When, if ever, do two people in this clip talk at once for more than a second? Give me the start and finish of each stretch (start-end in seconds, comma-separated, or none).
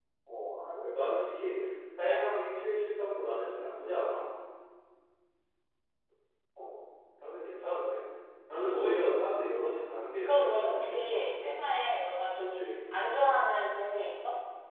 10.2-11.5